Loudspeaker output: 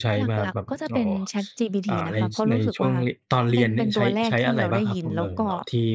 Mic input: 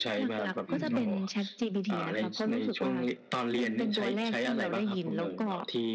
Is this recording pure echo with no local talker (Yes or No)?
No